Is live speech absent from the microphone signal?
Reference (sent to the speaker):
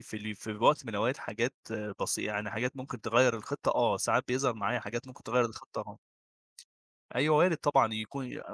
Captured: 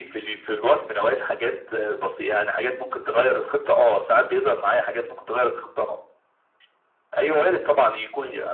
Yes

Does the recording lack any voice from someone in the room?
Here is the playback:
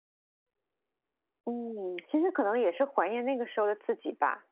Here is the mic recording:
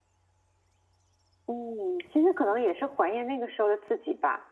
Yes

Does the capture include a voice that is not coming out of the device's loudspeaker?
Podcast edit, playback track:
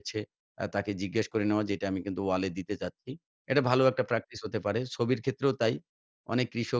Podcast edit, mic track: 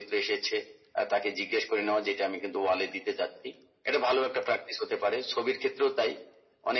No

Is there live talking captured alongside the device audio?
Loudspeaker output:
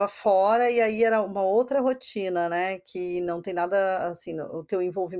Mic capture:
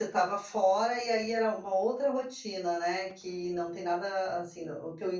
No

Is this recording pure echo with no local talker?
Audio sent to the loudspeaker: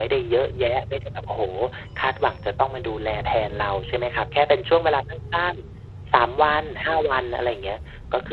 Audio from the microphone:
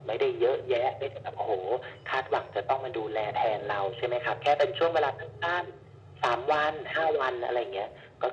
Yes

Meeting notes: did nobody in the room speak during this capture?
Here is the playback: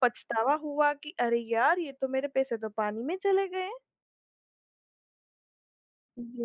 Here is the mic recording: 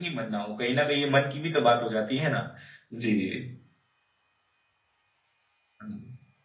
No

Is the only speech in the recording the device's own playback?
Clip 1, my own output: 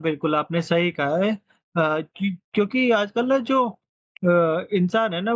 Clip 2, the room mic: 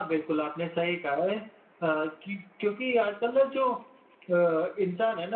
Yes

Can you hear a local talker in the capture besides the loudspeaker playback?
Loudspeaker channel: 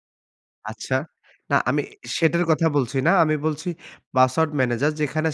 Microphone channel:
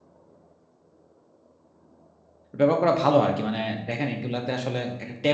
Yes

